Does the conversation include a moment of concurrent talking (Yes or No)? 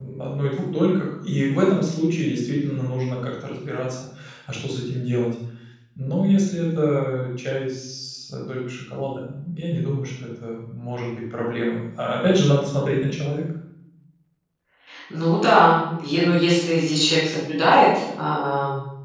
No